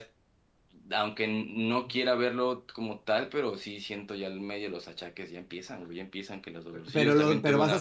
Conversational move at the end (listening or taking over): taking over